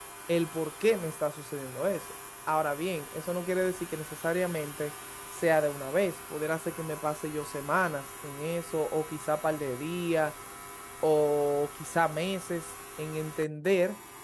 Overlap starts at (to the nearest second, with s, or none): none